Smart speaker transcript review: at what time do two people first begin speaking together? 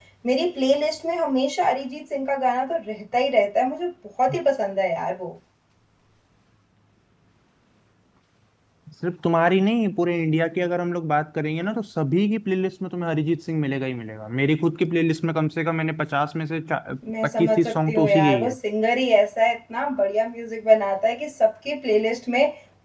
17 s

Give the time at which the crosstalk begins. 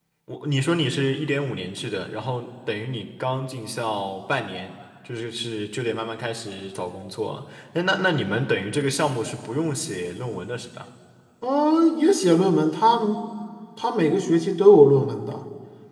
none

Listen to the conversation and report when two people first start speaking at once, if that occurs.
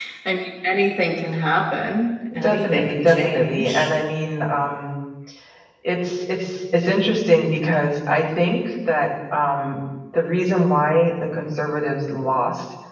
2 s

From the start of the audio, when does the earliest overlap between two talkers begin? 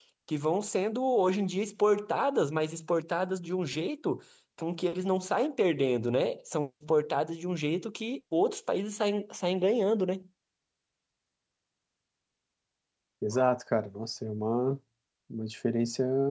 none

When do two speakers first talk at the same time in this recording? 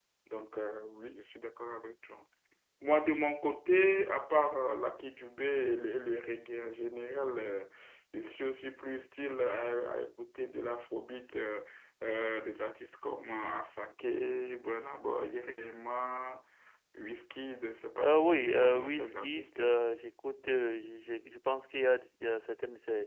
18 s

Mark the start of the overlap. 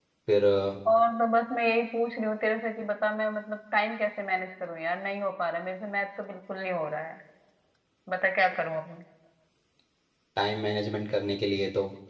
none

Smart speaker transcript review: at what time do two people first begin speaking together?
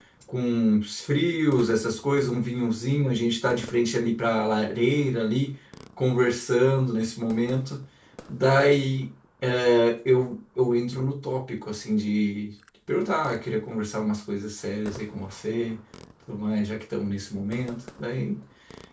none

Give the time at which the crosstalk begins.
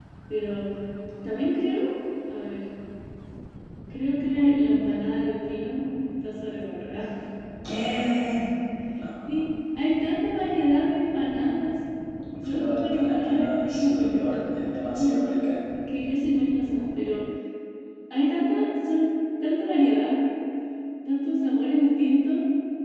12 s

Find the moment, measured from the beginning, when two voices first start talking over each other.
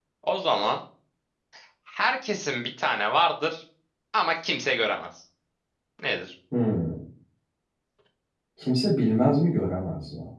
none

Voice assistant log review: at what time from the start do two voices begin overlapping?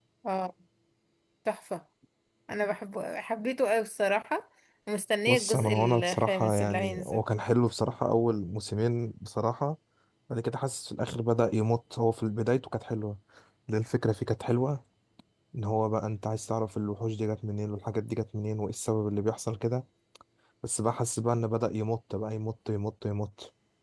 5 s

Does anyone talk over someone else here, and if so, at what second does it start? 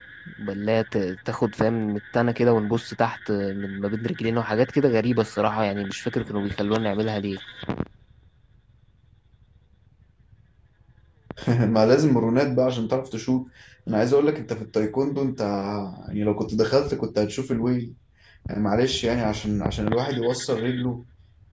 none

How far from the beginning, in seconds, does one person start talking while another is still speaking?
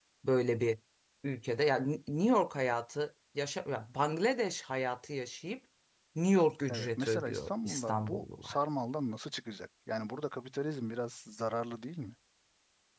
7 s

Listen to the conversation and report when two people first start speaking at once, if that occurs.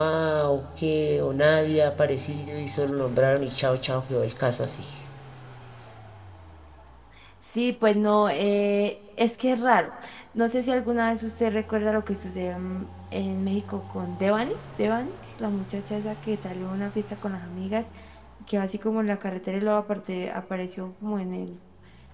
none

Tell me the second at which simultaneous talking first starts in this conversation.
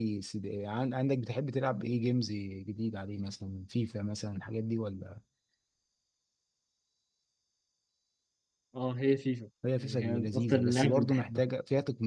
10 s

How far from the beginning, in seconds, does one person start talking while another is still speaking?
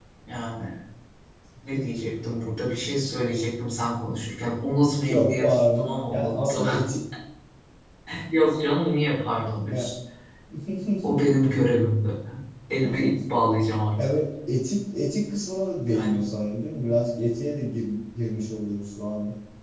5 s

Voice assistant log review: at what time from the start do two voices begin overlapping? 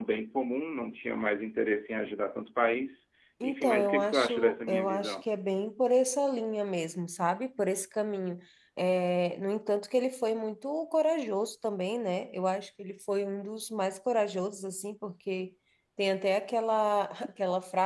3 s

